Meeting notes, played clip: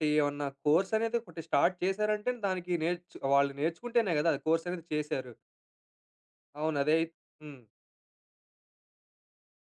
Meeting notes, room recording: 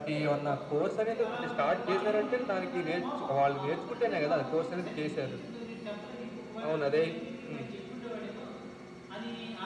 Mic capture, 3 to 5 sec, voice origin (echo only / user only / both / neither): both